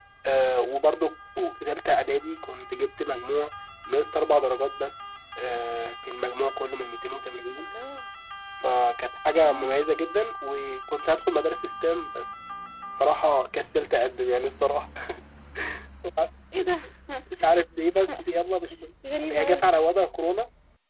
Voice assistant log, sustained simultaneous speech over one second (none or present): none